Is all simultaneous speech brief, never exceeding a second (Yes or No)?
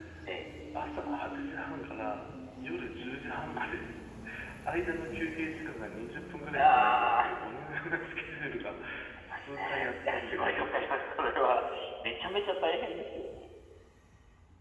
No